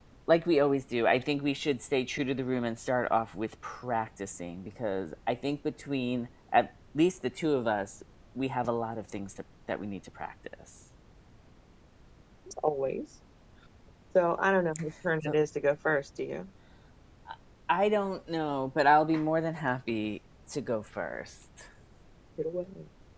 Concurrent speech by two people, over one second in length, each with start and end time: none

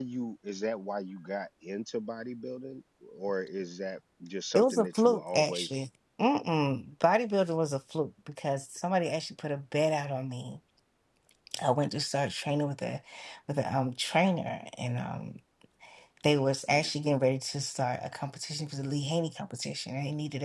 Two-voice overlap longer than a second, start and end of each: 4.5-5.8

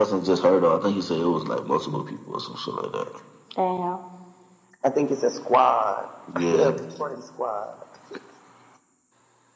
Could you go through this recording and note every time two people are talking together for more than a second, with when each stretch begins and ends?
none

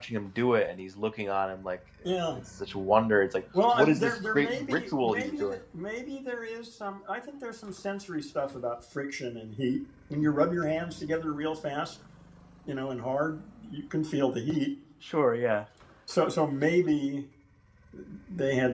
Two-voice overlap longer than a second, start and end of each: 3.7-5.6

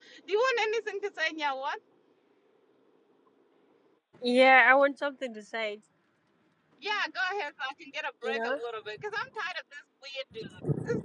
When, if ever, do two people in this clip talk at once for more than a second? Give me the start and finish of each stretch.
none

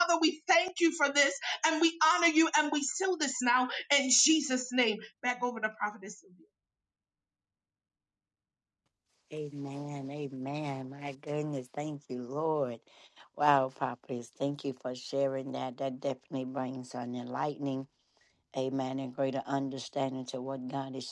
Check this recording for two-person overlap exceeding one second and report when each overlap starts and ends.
none

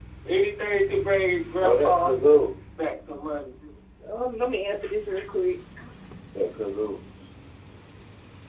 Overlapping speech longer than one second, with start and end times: none

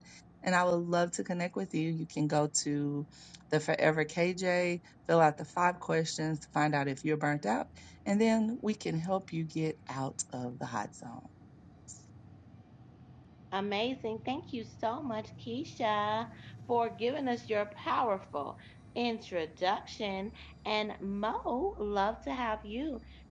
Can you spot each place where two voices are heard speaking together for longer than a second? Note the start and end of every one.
none

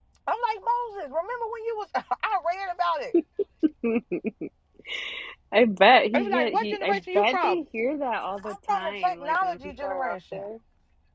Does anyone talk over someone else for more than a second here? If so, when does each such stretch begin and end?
6.1-7.6, 8.4-10.4

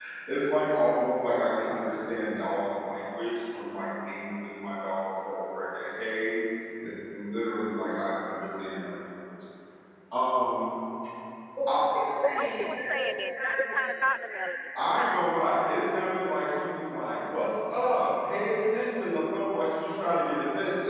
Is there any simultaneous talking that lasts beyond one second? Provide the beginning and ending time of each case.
12.2-15.3

